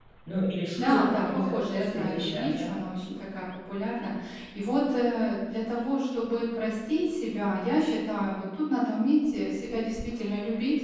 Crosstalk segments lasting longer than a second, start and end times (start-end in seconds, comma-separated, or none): 0.7-2.7